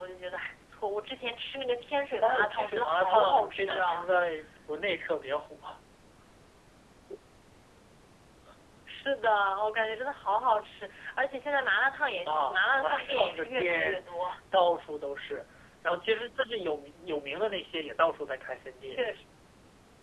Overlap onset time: 2.2 s

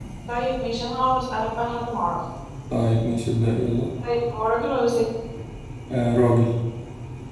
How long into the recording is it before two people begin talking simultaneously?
none

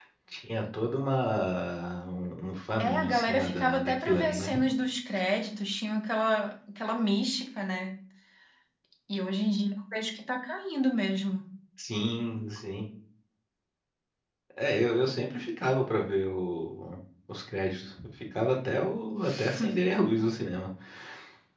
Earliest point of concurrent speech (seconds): 2.8 s

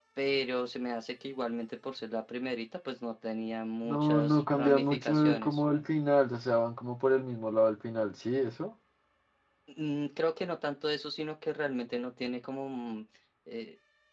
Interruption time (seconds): 3.8 s

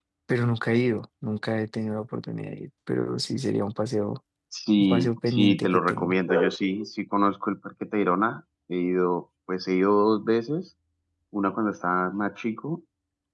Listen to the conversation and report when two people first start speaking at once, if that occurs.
4.8 s

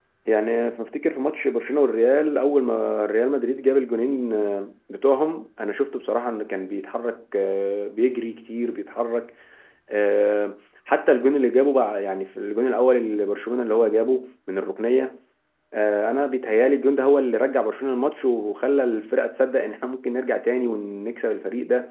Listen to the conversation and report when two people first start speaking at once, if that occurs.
none

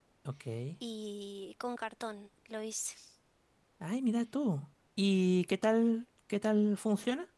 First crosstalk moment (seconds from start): none

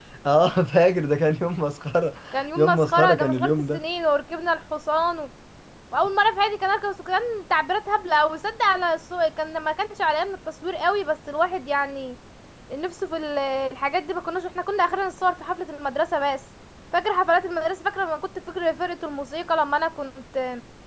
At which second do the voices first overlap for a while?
2.6 s

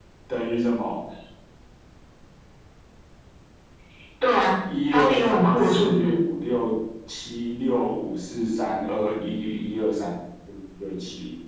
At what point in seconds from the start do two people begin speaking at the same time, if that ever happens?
4.9 s

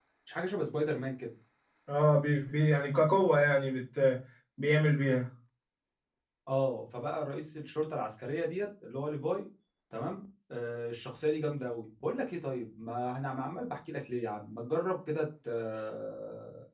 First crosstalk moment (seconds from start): none

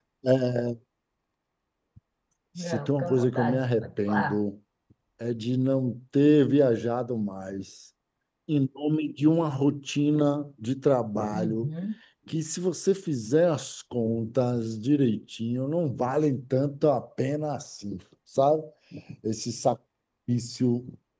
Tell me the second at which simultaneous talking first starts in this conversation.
2.6 s

